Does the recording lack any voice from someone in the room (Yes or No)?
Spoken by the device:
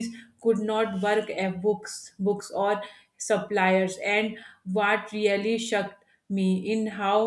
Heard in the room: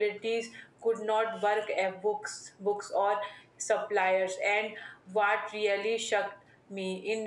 Yes